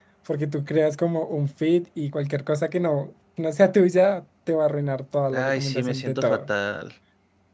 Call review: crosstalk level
present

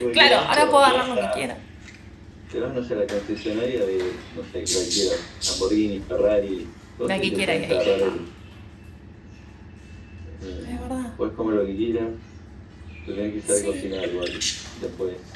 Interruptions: present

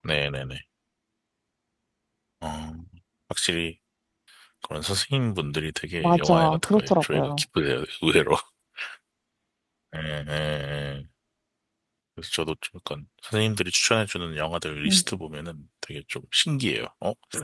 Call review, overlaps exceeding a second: present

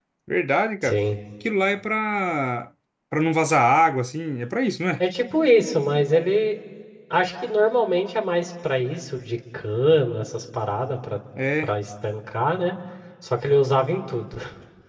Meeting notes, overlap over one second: none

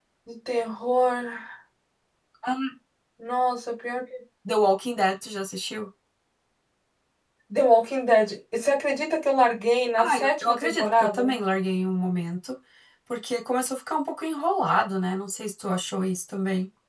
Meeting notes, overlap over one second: present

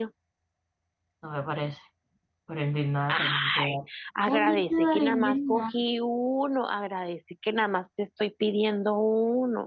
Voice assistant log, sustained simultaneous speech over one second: present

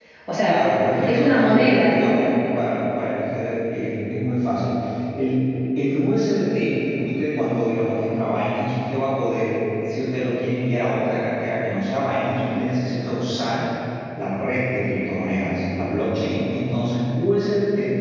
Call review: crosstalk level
present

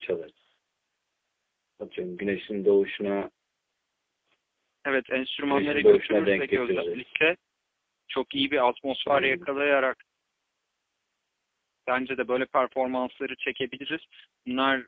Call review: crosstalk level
present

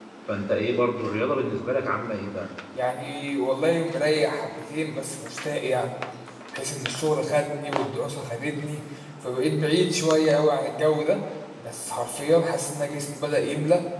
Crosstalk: none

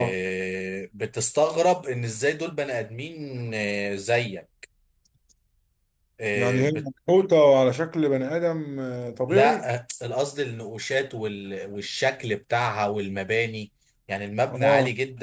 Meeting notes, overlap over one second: none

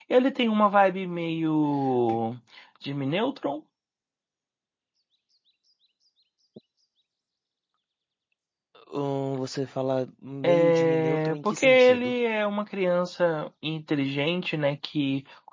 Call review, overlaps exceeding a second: present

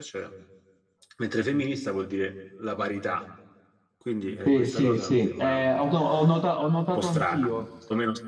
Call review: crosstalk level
present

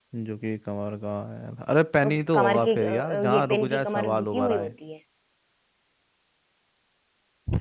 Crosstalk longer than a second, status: present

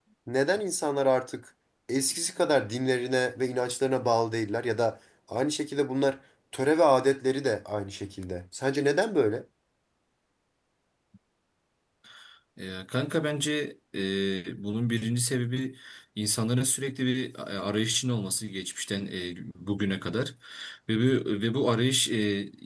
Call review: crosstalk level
none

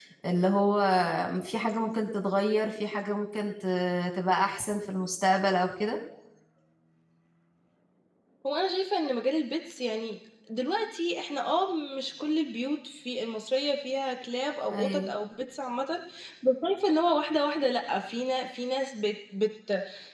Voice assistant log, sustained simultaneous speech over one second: none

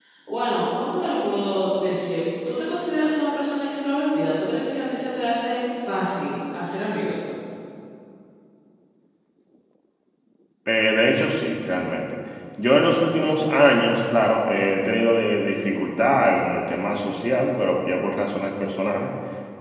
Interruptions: none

